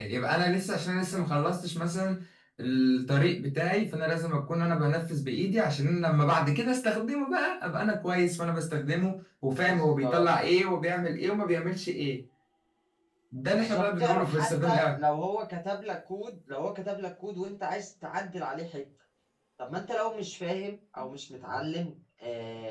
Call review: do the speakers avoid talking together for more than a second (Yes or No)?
No